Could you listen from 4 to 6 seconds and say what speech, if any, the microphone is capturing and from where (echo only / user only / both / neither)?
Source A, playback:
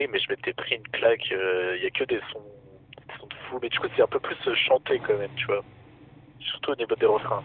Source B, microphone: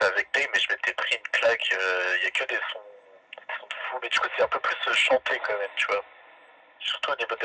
echo only